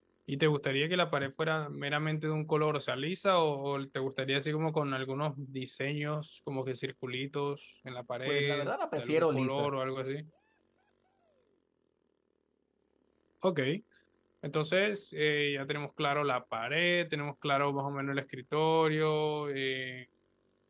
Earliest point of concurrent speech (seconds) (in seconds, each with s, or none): 8.3 s